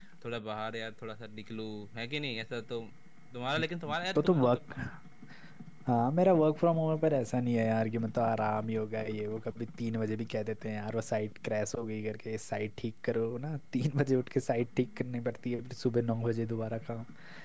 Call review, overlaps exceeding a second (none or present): none